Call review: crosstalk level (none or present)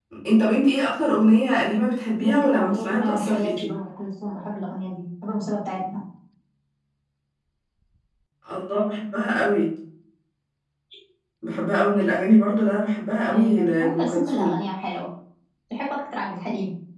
present